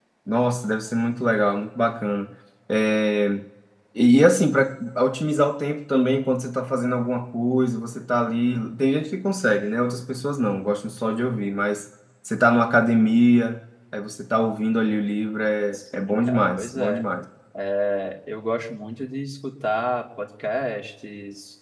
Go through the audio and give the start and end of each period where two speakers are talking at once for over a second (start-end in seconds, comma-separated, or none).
15.7-17.0